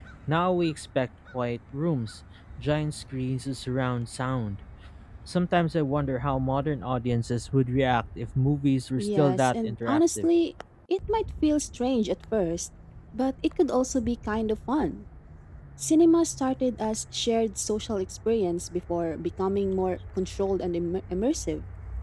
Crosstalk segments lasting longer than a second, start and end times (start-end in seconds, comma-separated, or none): 9.0-10.3